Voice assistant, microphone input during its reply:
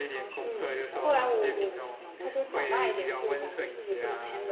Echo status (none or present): present